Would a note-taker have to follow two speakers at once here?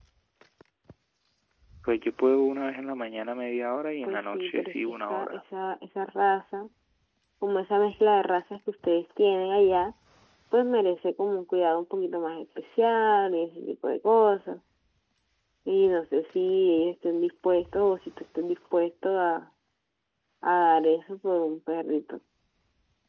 Yes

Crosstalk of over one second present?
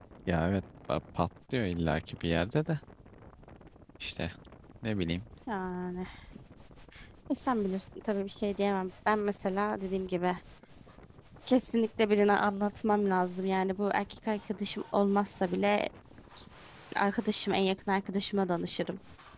No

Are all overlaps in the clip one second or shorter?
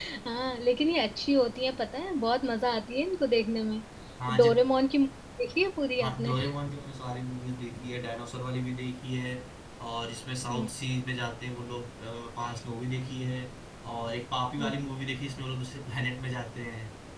Yes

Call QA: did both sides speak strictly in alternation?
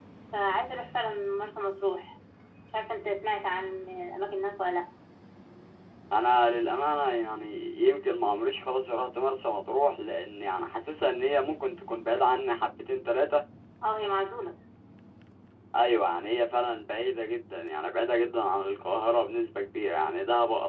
Yes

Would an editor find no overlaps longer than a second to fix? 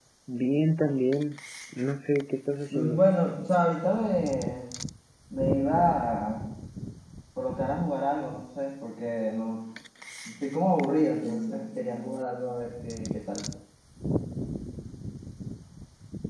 Yes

